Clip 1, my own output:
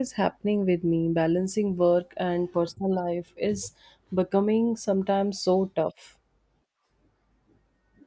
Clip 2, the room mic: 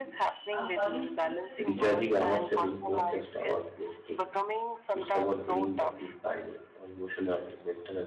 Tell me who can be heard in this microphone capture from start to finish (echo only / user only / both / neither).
both